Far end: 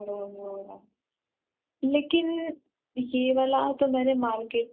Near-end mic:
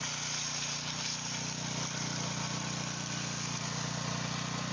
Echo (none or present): none